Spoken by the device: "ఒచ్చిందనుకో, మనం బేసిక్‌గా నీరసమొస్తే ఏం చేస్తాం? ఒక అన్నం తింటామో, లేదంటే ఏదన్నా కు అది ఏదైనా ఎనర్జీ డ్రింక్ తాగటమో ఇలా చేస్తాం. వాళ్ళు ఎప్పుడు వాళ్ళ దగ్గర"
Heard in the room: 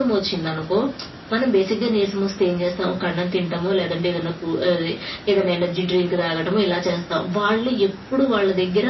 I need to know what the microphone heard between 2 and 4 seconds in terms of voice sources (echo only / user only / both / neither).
echo only